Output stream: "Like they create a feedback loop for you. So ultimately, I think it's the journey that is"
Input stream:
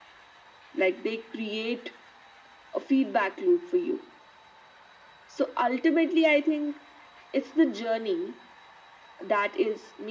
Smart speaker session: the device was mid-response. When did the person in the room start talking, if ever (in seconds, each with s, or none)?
none